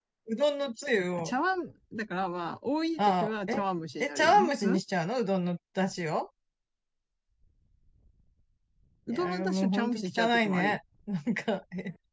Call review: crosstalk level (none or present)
present